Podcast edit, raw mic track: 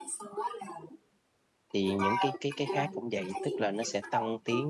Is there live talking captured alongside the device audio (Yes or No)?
Yes